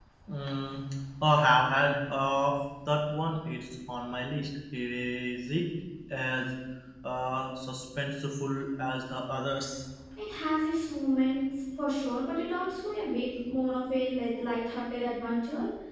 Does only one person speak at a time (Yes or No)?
Yes